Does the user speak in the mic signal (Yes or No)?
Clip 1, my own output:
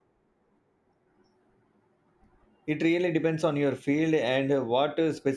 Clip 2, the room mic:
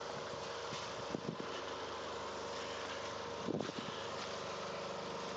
No